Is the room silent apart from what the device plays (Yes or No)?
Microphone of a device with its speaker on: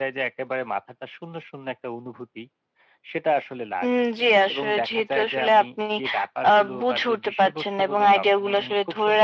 Yes